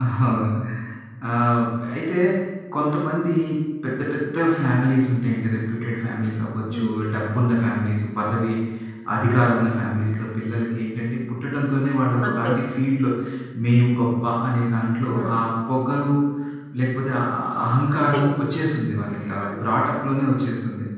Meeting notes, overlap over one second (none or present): none